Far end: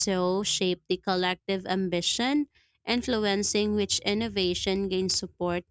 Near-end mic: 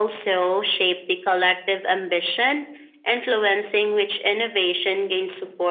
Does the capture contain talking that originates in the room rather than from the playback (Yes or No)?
No